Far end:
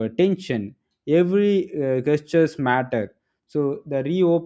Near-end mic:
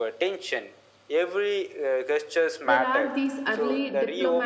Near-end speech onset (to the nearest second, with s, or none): 3 s